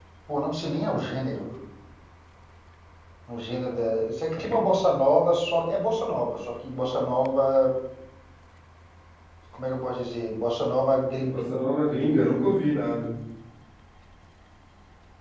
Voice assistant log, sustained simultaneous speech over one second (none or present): none